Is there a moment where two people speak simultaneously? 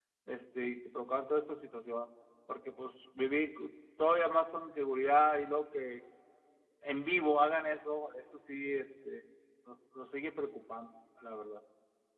No

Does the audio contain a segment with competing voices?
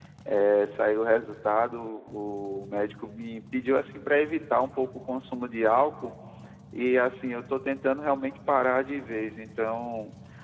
No

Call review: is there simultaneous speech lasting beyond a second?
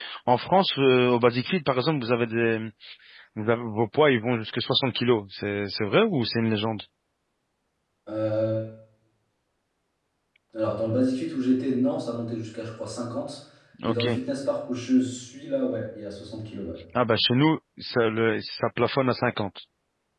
No

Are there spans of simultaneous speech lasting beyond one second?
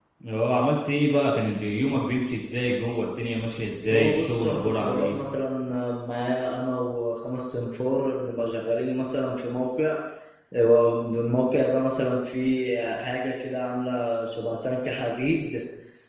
Yes, from 3.9 s

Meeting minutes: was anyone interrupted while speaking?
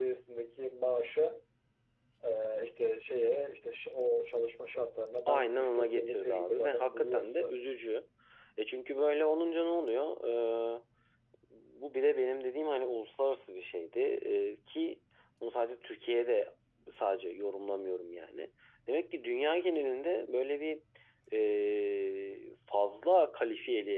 Yes, from 5.3 s

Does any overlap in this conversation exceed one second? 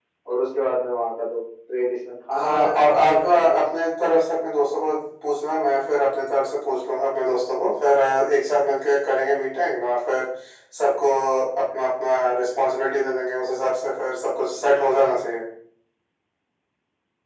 Yes, from 2.3 s

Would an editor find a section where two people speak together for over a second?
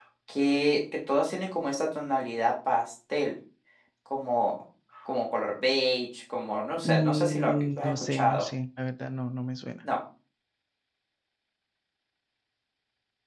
Yes, from 6.8 s

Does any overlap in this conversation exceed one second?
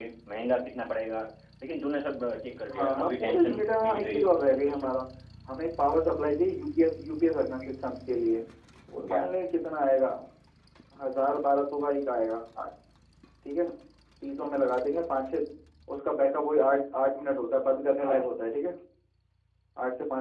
Yes, from 2.7 s

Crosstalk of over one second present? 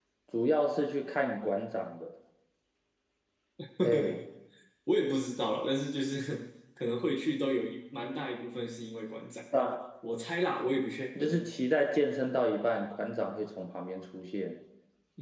No

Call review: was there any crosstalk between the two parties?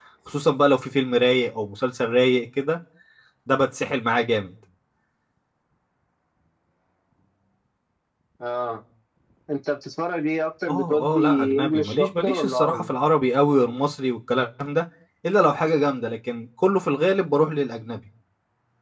Yes, from 10.7 s

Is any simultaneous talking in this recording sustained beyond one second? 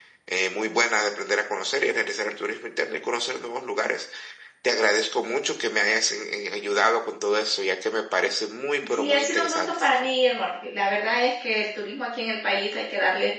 Yes, from 8.8 s

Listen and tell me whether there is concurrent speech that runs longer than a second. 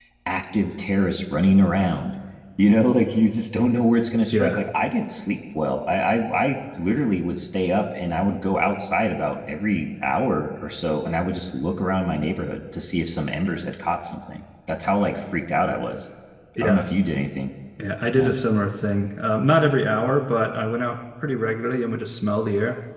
No

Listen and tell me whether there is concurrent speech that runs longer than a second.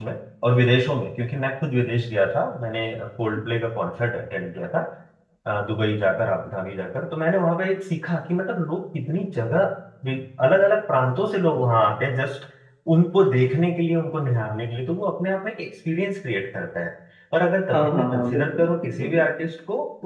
Yes, from 17.7 s

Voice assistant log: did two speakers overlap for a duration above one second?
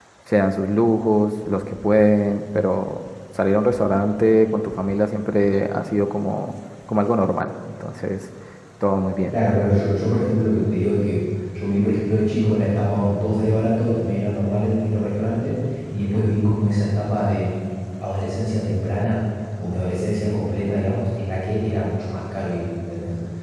No

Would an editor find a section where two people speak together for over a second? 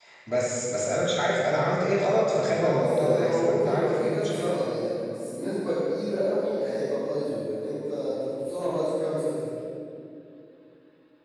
Yes, from 2.5 s

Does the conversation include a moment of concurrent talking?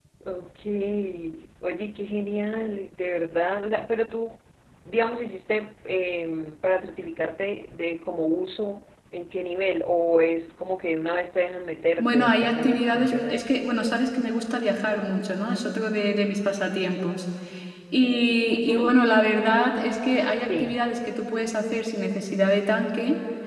Yes, from 12.0 s

